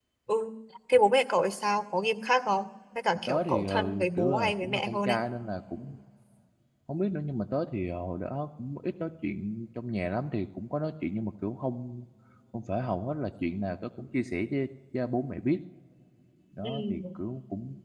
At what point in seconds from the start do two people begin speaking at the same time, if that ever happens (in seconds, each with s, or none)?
3.3 s